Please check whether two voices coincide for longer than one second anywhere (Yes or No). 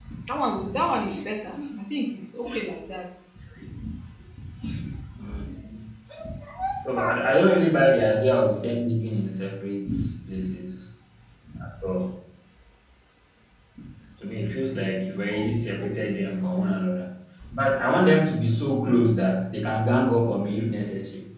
No